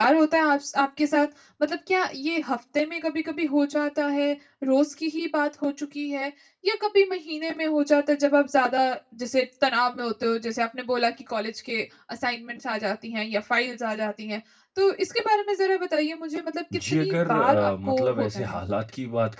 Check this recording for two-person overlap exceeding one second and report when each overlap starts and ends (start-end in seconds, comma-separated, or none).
16.9-18.6